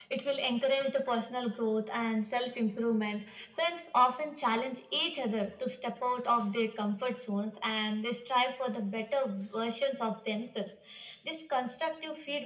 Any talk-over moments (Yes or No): No